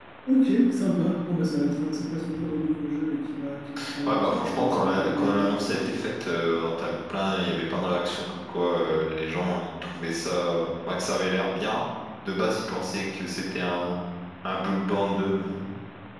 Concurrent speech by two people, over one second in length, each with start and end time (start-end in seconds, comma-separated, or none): 4.1-6.0